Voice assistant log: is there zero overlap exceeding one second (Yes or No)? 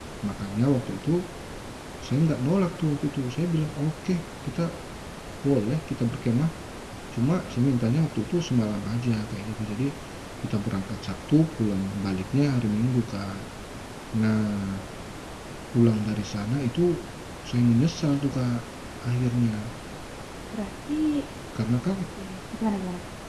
Yes